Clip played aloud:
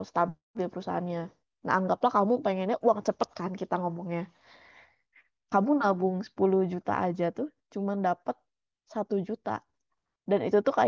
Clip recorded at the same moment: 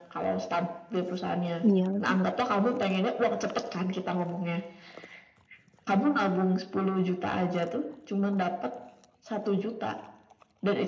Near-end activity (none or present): present